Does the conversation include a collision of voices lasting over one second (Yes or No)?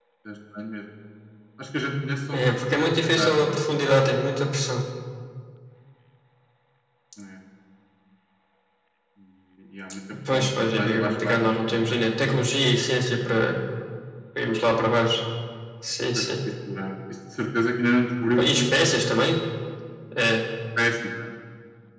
Yes